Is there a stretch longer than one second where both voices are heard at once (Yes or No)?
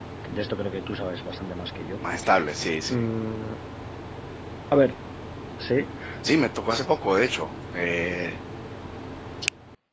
No